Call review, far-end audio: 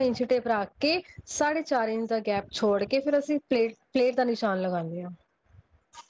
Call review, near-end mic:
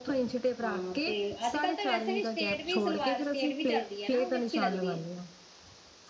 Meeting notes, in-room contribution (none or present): present